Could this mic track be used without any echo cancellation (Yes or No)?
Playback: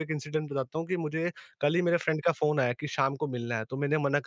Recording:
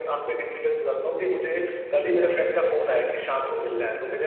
No